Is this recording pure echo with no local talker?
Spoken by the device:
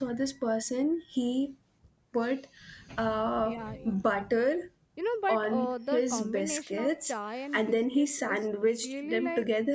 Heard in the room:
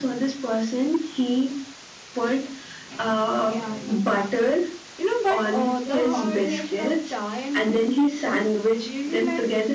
No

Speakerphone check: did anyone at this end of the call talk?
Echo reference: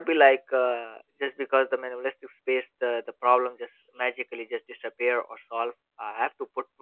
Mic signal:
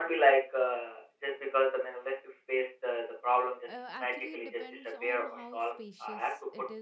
Yes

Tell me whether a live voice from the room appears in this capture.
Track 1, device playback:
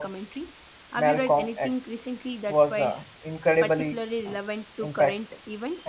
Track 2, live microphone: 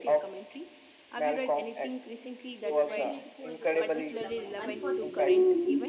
Yes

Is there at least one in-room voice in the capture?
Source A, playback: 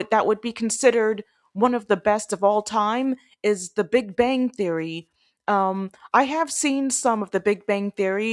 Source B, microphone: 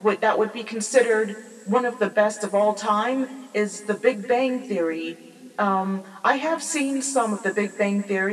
No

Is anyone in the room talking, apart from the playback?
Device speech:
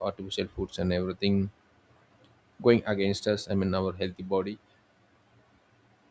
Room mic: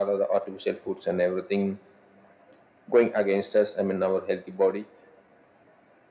No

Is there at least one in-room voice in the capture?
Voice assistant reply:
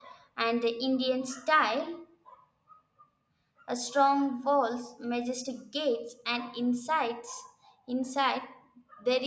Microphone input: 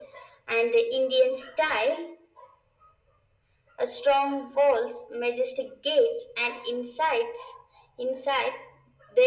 No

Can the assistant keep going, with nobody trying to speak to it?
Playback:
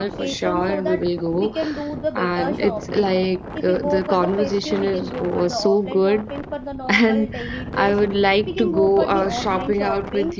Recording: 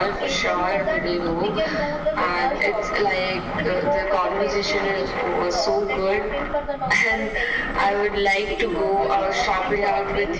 Yes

